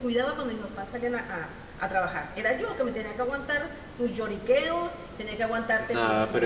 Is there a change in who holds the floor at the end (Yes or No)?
Yes